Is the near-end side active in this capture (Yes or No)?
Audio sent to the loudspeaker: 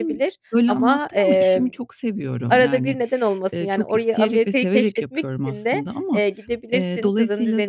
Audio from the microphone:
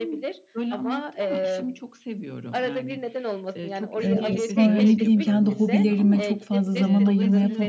Yes